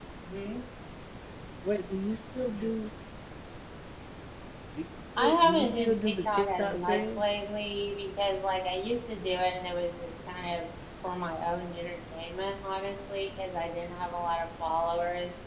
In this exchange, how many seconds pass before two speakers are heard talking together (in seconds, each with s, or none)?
5.2 s